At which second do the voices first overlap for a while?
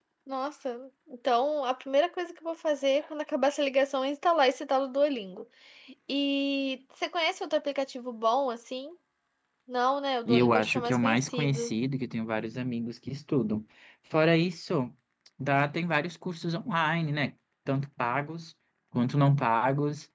10.3 s

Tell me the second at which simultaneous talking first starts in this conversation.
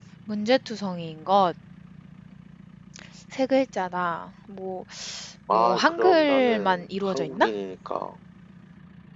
5.5 s

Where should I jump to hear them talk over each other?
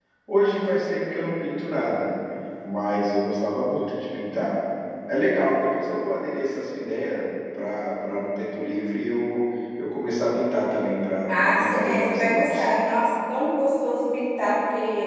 11.3 s

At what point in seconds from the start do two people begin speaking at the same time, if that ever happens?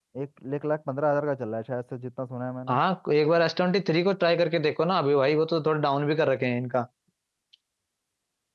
none

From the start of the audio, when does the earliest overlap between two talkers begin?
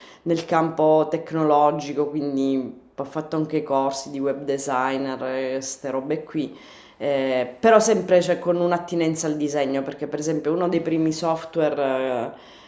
none

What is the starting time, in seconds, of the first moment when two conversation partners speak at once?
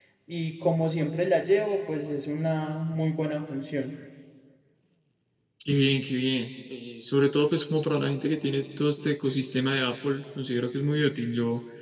none

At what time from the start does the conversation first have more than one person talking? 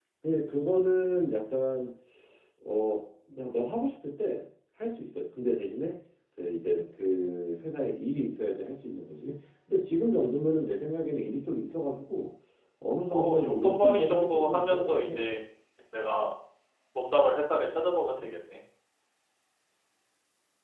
13.1 s

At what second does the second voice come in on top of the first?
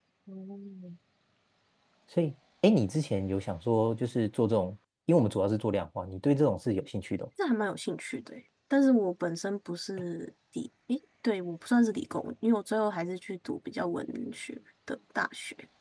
none

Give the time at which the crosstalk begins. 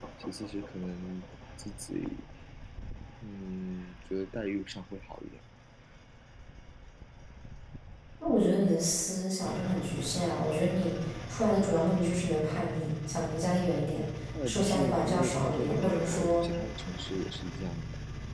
14.4 s

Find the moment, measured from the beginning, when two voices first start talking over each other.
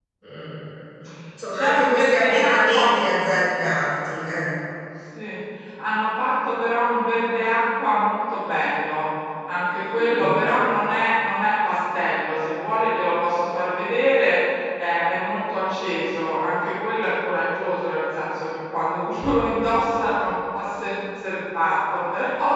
1.5 s

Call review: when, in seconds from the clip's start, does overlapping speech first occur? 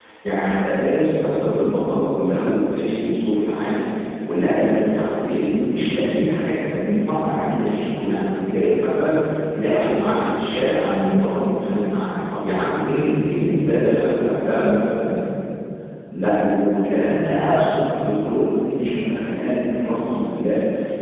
none

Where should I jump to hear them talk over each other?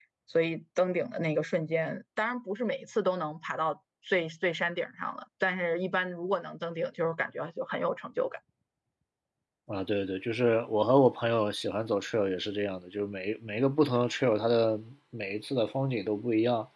none

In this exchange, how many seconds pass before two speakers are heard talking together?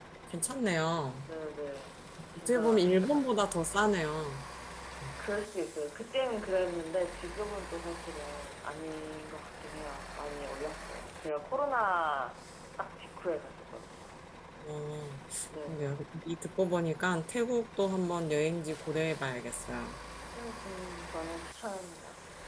2.4 s

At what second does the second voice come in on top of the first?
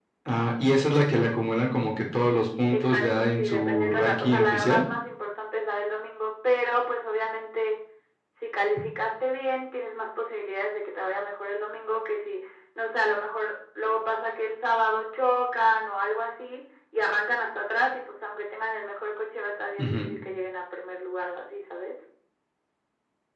2.7 s

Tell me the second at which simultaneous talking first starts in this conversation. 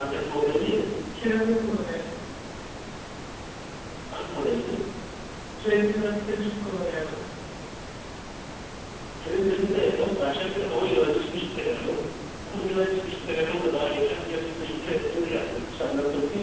none

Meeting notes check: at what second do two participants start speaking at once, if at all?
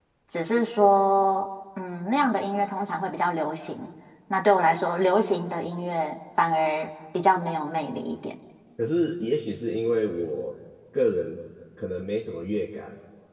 none

